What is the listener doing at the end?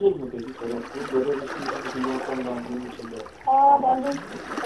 taking over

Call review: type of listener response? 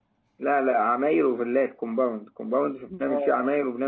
listening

